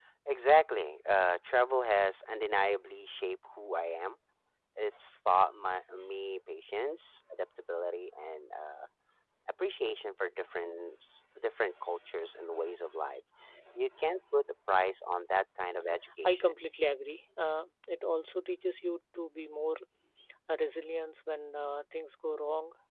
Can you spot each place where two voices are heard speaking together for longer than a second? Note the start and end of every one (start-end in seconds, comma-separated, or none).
none